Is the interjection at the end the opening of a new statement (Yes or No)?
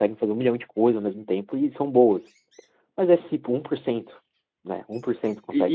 Yes